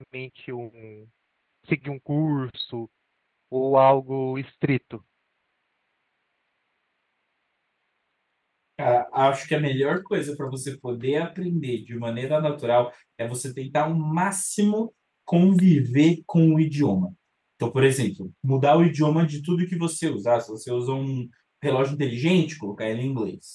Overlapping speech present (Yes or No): No